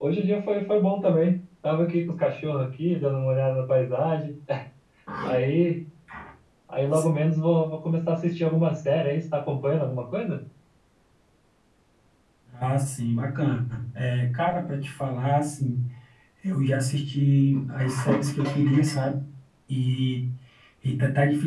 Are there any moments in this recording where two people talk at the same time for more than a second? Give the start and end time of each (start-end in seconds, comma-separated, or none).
none